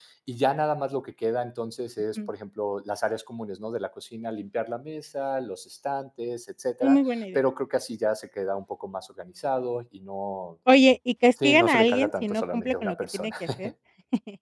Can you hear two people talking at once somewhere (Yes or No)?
Yes